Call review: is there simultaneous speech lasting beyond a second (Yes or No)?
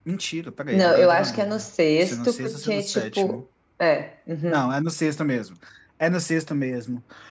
Yes